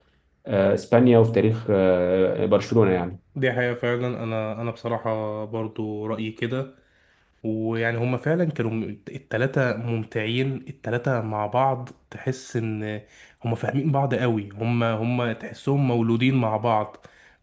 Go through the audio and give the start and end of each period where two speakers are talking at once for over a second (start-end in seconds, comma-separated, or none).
none